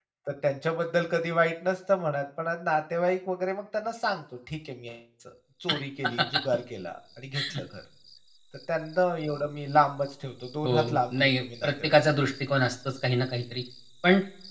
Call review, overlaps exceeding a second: present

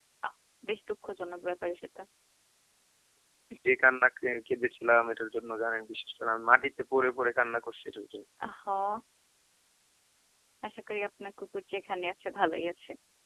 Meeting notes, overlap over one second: none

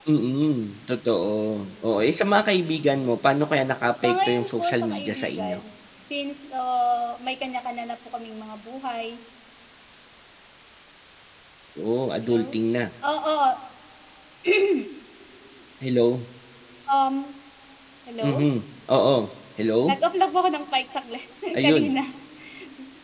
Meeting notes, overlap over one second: present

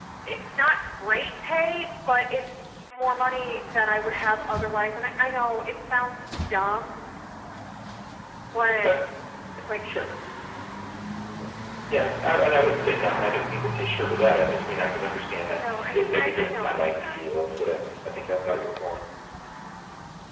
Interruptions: present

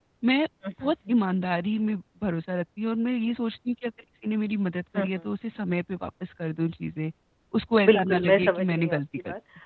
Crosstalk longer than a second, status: present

